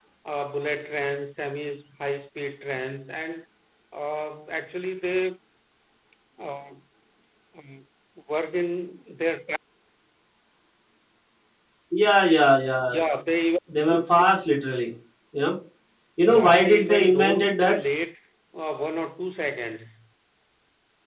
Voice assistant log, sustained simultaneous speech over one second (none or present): present